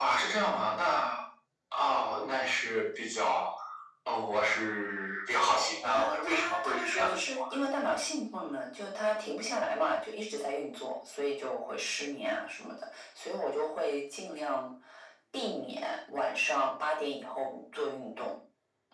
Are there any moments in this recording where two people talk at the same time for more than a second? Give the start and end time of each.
5.9-7.4

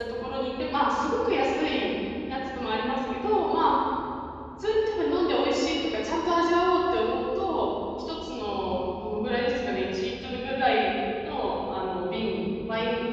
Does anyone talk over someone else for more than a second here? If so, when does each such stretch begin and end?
none

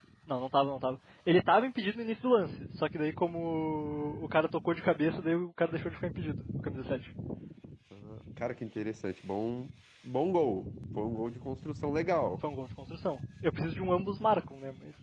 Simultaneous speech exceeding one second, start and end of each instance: none

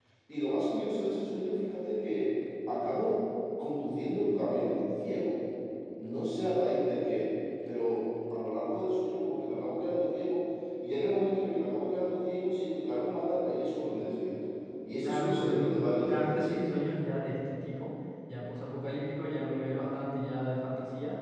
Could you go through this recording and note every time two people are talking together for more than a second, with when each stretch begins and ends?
15.0-16.5

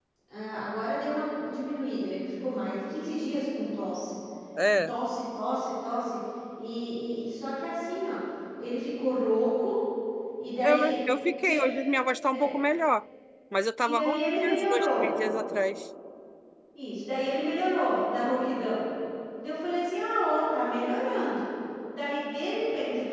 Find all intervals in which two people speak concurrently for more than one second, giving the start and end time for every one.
13.8-15.0

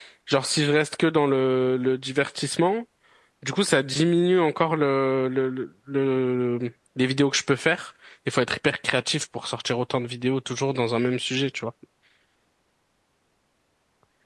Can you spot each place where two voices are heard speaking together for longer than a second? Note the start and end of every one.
none

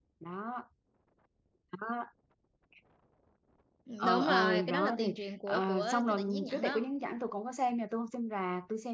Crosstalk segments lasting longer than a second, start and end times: 4.0-6.8

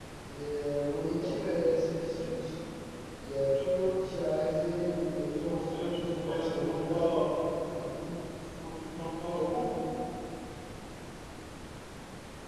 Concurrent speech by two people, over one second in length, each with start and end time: 5.4-7.2

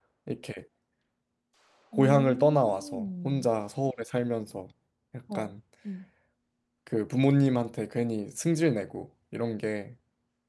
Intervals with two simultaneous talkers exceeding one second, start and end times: 2.0-3.5

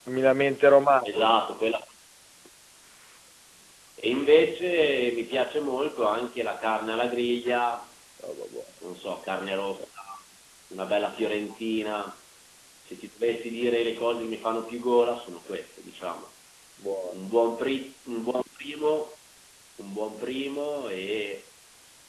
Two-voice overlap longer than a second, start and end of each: none

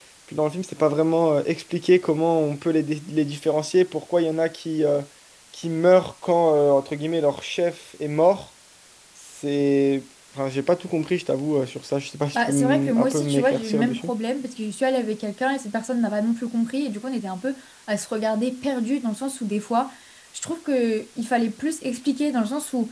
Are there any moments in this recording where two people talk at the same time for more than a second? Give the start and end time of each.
12.3-14.1

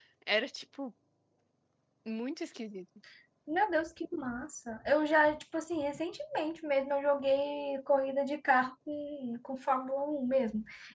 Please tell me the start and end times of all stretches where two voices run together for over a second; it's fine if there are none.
none

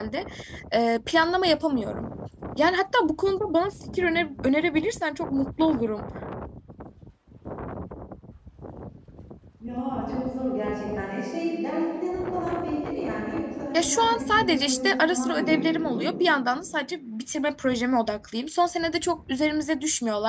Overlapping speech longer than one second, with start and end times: 13.7-16.1

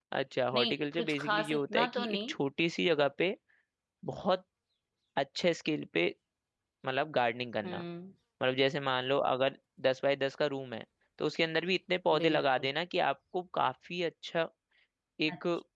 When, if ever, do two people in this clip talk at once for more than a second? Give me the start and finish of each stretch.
0.5-2.3

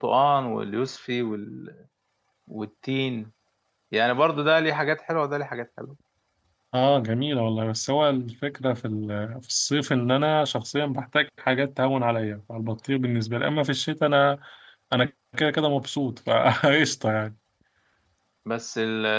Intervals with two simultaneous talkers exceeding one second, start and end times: none

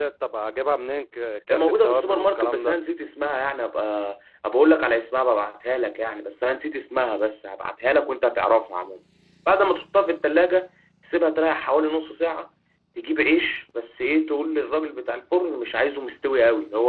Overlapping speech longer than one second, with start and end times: 1.5-2.8

